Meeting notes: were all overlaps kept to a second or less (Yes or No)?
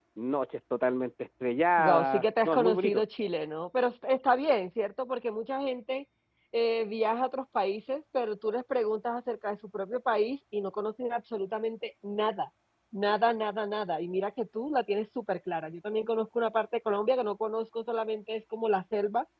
No